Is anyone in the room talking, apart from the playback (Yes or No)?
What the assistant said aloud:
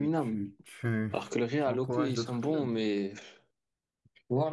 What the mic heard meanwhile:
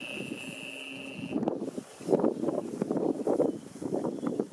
No